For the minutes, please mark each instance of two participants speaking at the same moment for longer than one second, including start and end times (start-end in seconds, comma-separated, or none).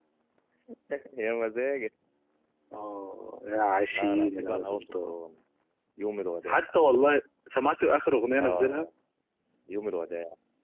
3.9-5.2